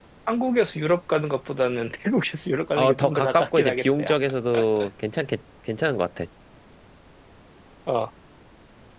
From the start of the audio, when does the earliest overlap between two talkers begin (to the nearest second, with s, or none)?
3 s